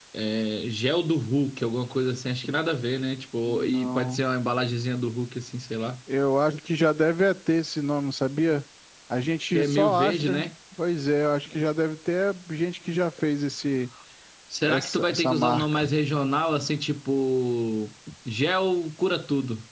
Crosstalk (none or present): present